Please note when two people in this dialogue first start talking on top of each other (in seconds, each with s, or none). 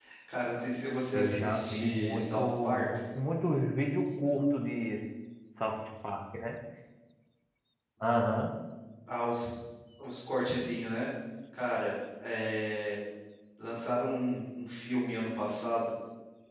1.1 s